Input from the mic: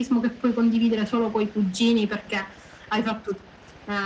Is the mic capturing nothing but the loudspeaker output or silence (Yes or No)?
Yes